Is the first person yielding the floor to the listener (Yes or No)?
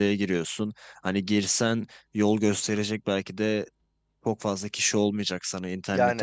No